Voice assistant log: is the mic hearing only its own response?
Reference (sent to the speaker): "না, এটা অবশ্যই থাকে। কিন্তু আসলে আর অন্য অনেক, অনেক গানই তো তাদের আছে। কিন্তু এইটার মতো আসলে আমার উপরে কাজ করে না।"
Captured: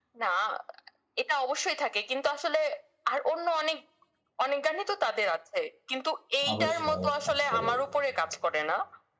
No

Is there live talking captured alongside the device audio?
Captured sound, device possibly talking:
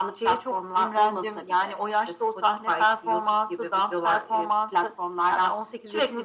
No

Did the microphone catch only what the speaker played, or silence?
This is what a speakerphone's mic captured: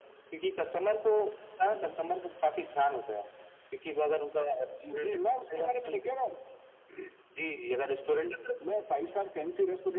Yes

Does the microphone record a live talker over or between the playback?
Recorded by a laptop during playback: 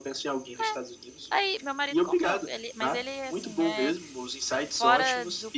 Yes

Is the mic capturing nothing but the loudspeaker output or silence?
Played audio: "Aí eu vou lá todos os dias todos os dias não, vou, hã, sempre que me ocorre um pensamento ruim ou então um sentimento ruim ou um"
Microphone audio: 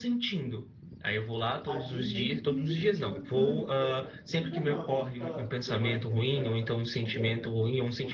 No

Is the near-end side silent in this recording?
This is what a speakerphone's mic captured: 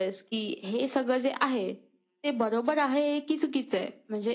Yes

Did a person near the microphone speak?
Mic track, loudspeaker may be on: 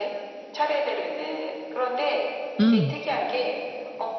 Yes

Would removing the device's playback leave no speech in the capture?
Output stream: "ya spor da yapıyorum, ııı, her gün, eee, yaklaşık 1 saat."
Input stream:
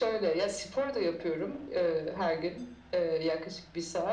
Yes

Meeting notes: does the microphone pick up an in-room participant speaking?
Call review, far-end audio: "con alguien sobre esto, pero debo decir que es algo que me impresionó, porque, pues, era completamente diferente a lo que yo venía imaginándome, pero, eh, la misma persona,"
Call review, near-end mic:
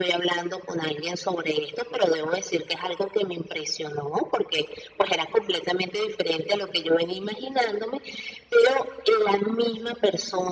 No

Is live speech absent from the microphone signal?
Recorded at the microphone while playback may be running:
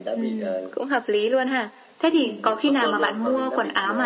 Yes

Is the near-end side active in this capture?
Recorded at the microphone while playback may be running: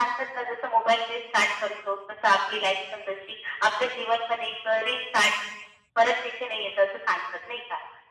No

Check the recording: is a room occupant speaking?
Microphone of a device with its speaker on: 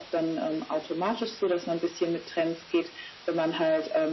No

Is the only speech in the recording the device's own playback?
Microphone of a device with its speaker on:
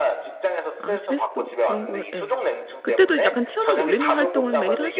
No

